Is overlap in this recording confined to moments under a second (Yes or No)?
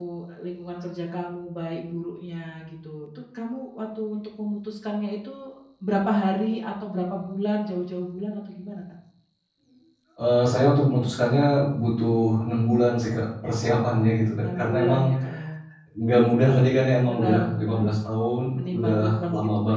No